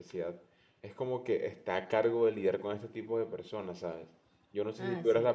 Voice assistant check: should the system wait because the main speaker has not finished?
Yes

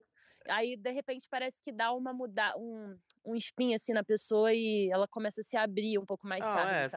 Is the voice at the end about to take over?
Yes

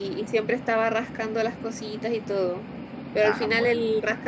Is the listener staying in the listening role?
Yes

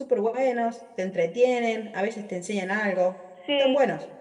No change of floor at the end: No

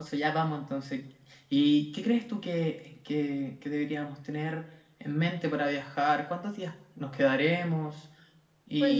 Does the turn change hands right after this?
Yes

